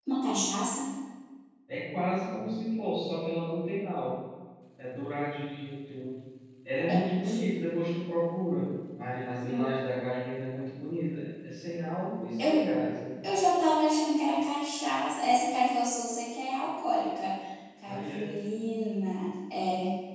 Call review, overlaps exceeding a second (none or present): none